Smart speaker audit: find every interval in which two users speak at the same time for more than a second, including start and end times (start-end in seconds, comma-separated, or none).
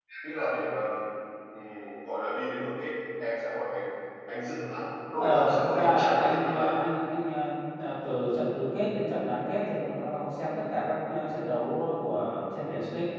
5.2-6.7